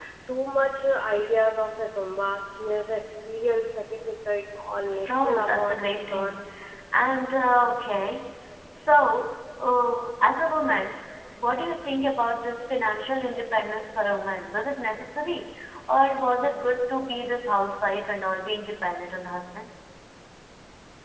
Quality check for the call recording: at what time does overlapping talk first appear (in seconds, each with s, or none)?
5.1 s